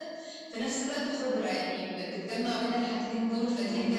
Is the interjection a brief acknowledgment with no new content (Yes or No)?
No